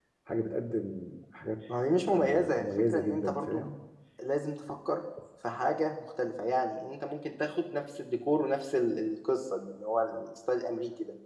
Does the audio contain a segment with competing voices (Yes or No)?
Yes